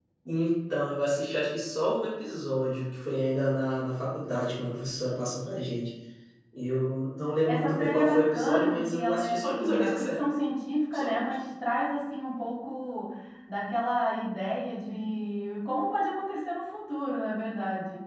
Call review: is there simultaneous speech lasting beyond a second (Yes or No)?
Yes